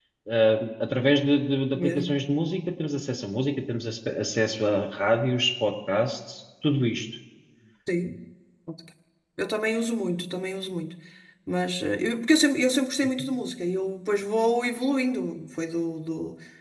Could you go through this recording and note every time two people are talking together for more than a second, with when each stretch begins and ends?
none

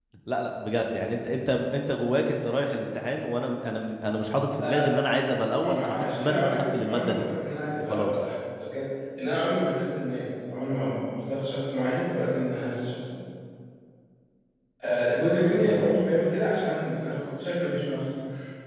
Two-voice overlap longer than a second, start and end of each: 5.6-7.2

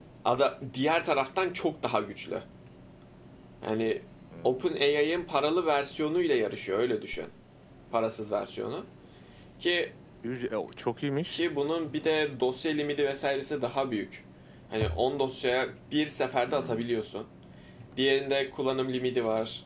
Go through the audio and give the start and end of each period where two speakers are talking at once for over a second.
none

